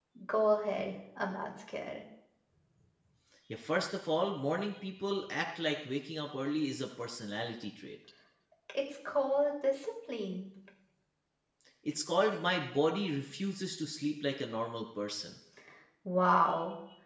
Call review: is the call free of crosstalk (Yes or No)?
Yes